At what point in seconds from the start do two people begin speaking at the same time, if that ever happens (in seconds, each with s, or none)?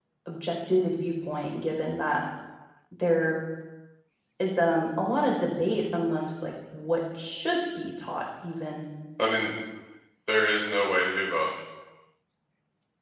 none